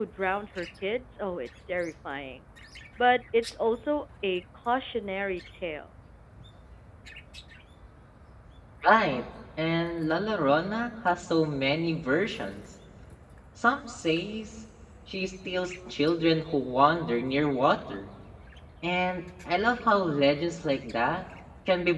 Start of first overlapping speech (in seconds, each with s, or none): none